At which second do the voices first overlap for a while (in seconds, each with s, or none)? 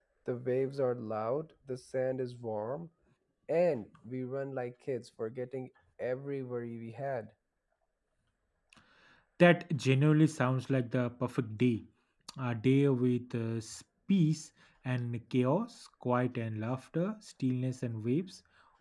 none